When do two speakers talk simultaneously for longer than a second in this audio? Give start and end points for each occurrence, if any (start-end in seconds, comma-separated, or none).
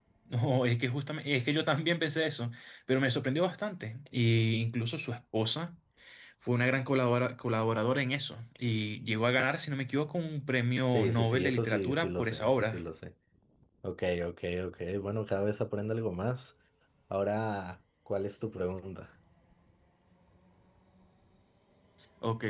10.9-12.8